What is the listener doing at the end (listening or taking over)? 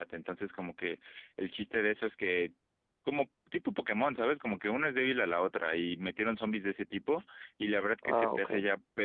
listening